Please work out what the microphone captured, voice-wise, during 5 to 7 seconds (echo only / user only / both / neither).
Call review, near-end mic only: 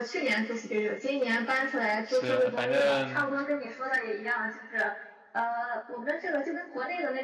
echo only